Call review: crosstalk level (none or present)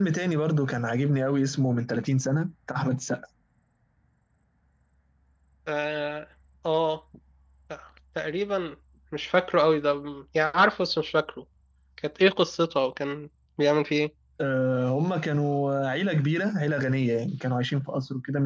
none